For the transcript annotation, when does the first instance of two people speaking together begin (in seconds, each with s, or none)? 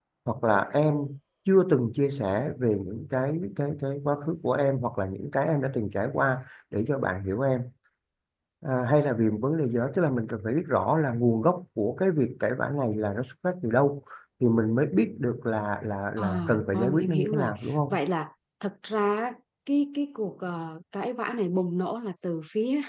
16.2 s